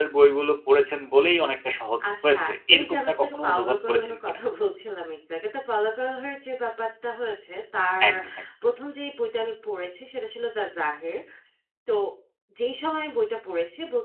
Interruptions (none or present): present